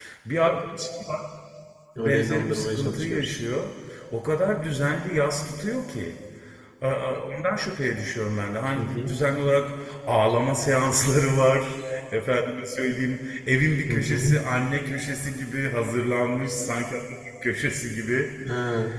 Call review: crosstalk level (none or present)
present